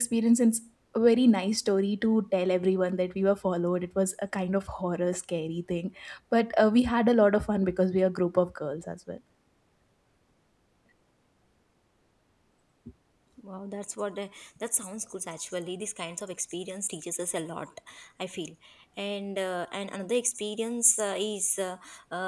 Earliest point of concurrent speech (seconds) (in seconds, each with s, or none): none